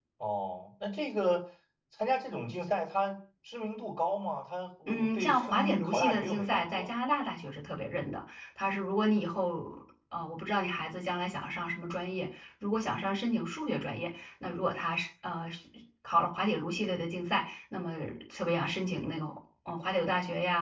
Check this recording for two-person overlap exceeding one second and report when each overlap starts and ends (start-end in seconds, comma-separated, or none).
4.9-6.9